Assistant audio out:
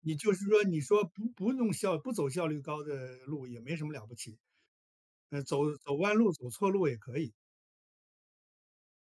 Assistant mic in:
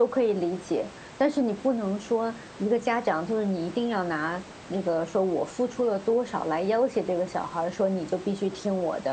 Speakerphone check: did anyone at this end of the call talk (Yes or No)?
Yes